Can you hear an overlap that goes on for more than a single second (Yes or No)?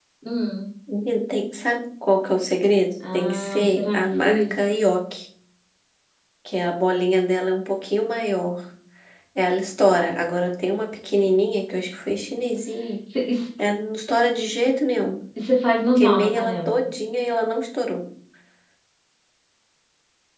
Yes